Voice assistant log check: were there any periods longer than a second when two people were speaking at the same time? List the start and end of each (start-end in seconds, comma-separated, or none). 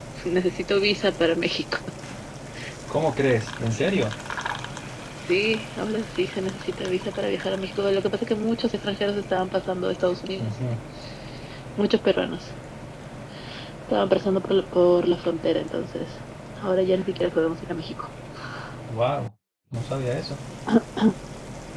none